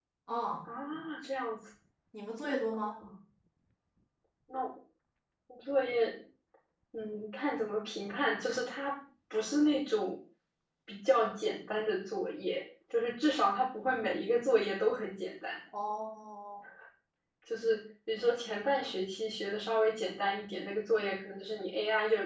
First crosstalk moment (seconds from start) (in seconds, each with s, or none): none